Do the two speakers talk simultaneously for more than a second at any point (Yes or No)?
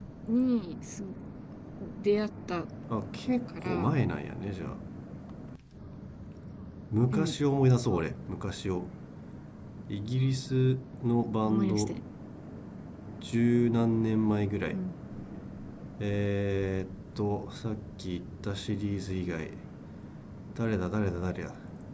No